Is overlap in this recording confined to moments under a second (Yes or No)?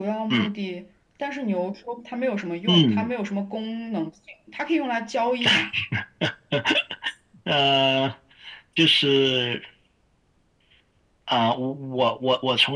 Yes